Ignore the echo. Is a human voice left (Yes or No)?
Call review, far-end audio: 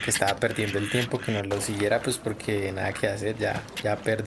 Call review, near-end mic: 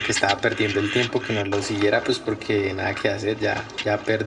No